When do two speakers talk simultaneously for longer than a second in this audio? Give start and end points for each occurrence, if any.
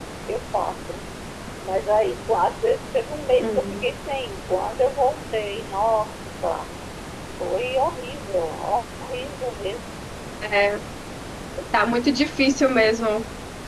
none

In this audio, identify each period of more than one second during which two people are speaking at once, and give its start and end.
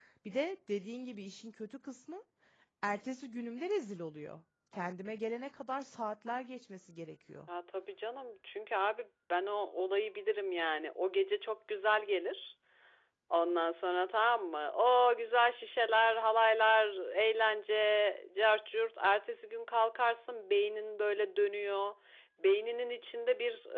none

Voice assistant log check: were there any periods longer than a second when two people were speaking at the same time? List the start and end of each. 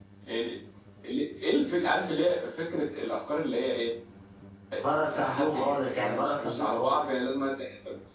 4.8-7.1

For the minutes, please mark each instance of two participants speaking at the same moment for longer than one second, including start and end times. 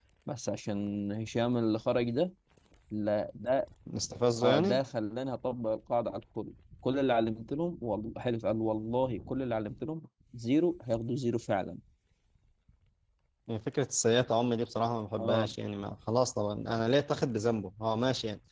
none

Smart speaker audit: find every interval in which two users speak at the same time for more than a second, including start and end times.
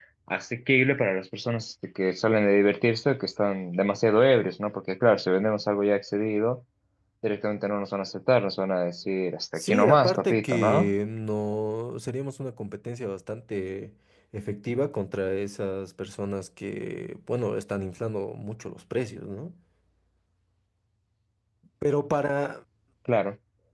9.6-10.9

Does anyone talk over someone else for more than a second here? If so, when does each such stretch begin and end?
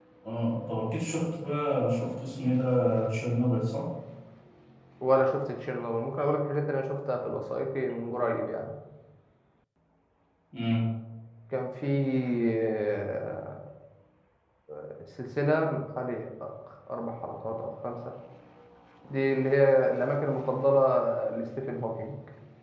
none

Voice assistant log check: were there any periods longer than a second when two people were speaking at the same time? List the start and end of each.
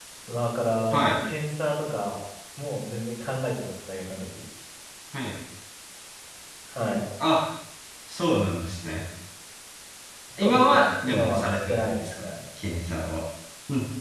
10.4-12.2

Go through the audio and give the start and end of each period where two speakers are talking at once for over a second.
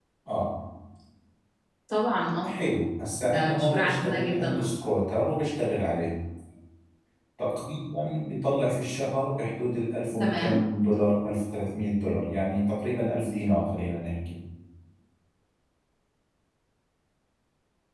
3.3-4.7

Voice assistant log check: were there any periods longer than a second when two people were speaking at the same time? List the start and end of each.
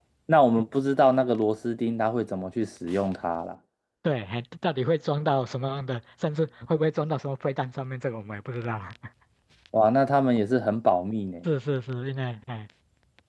none

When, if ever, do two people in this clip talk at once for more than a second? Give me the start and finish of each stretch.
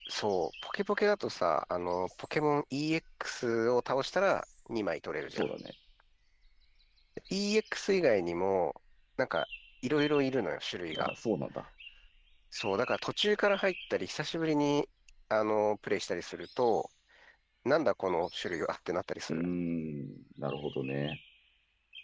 none

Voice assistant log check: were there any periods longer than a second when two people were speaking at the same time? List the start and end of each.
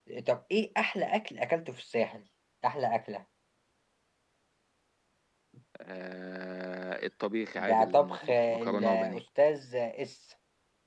7.6-9.2

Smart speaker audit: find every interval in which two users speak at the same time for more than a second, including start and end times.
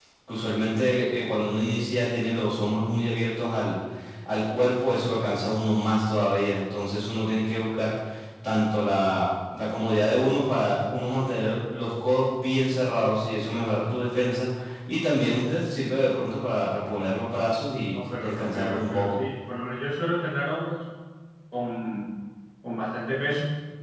17.9-19.2

